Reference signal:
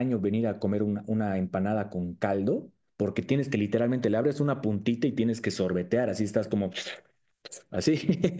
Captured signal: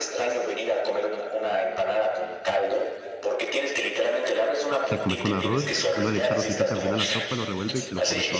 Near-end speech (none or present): present